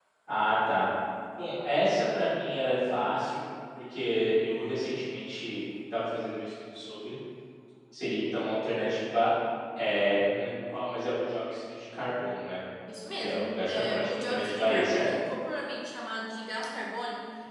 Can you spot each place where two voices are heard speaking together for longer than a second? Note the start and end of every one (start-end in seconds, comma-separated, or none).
13.2-15.1